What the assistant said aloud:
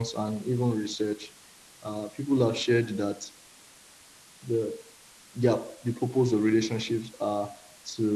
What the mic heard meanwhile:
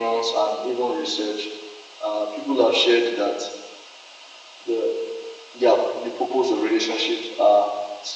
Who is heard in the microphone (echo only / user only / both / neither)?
echo only